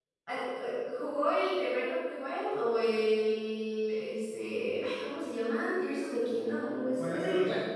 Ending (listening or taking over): taking over